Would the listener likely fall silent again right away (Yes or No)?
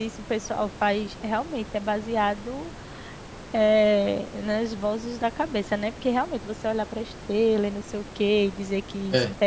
Yes